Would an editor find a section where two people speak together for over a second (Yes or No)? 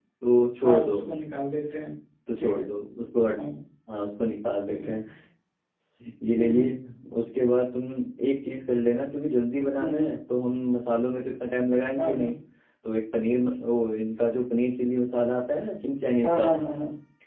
No